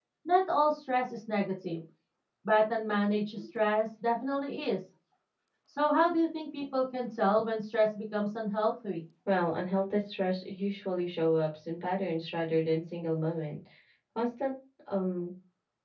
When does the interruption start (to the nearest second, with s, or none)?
none